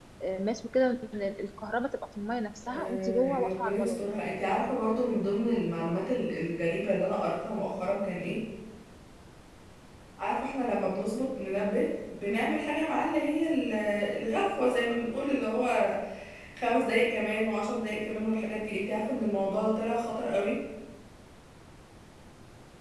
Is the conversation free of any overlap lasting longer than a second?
No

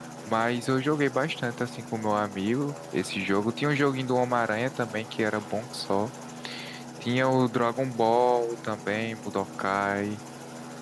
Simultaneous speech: No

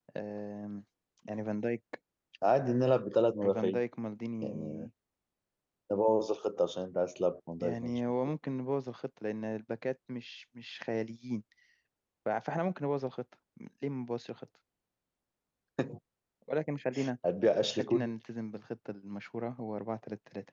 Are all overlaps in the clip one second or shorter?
Yes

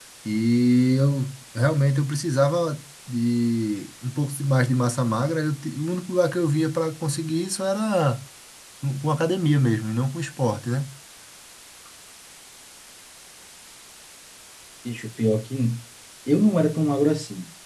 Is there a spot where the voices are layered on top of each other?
No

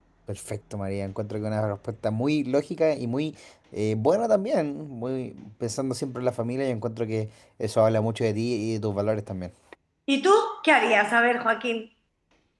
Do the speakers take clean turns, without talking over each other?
Yes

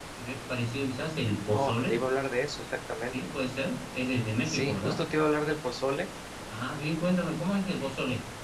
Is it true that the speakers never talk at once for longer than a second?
Yes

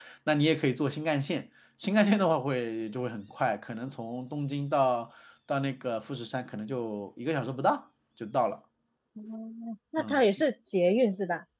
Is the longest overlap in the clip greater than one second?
No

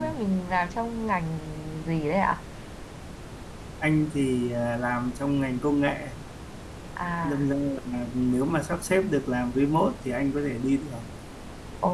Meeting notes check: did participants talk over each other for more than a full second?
No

